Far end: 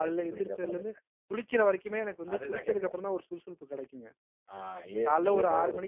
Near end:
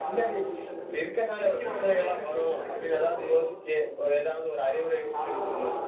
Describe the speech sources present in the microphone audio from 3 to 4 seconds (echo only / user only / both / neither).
both